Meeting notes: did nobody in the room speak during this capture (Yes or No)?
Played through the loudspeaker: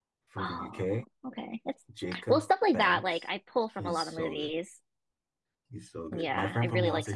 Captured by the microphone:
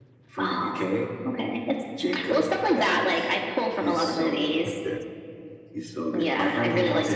No